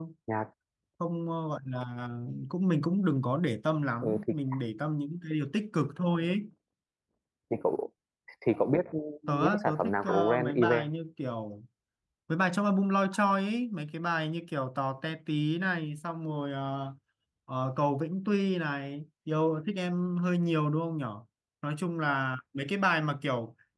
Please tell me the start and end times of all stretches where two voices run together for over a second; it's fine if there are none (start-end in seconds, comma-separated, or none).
9.3-10.9